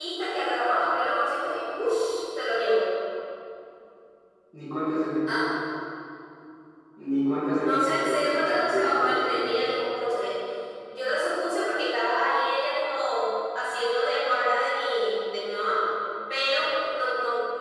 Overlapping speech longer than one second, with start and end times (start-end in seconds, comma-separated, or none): 7.6-9.4